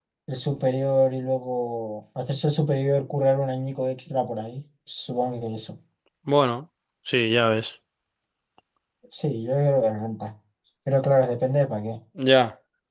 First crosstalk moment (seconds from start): none

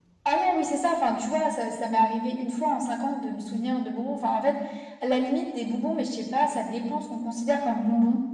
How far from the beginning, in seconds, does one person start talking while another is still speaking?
none

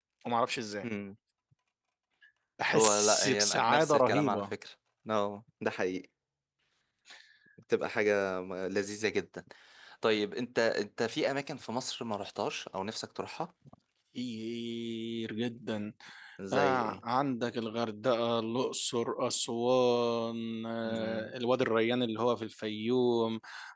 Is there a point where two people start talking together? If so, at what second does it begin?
2.7 s

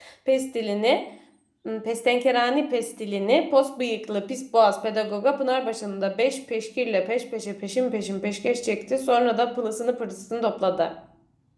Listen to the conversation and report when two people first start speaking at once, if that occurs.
none

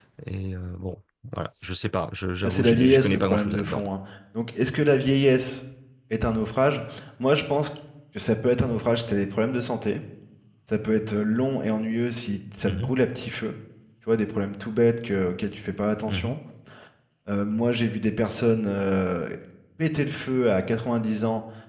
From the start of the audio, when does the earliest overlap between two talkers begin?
2.4 s

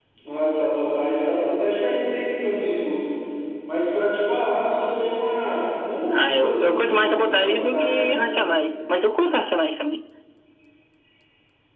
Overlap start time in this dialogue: 6.1 s

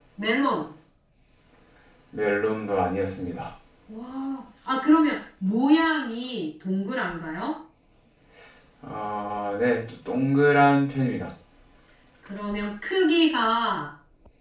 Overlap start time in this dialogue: none

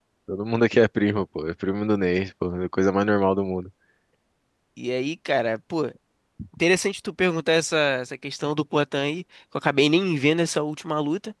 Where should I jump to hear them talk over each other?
none

